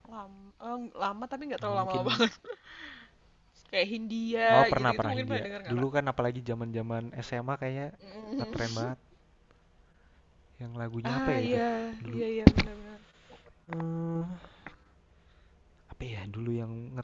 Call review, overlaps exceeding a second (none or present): present